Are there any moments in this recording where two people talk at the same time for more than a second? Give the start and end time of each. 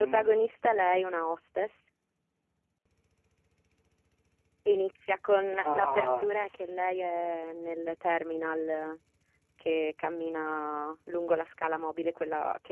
5.6-6.8

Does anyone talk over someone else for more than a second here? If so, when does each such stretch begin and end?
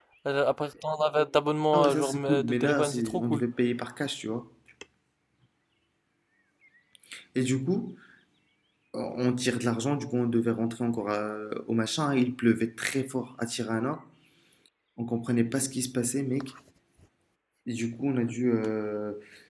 1.7-3.4

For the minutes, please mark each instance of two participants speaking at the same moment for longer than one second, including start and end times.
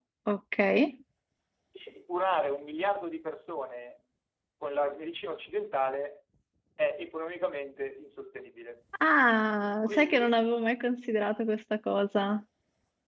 none

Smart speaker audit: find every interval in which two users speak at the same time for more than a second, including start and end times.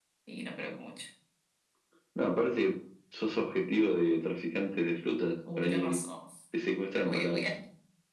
none

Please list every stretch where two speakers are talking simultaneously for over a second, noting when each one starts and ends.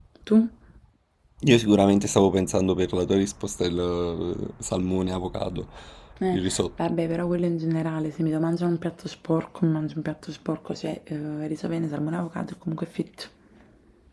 none

